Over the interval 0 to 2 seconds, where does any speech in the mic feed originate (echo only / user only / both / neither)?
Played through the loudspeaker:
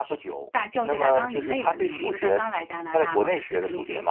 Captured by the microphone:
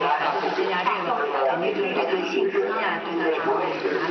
both